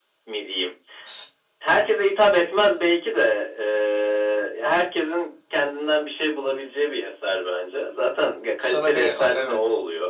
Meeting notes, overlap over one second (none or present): present